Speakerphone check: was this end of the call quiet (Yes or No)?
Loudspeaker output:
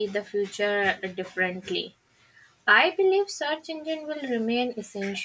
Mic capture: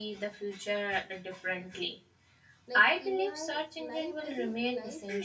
No